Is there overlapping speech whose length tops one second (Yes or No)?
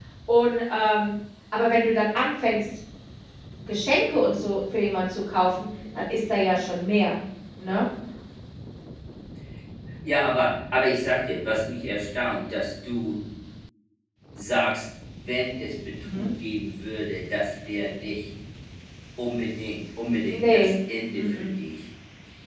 No